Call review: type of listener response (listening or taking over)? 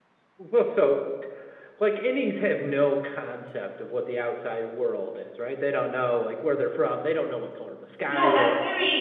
taking over